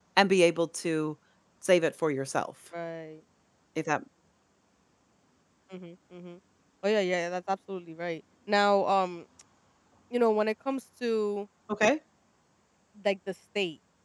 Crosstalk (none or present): none